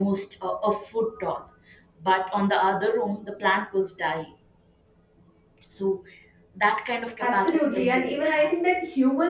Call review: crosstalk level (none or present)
present